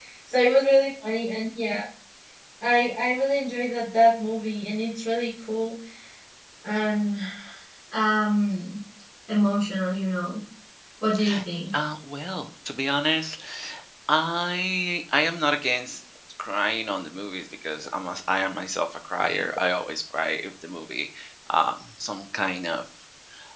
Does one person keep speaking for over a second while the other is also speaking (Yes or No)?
No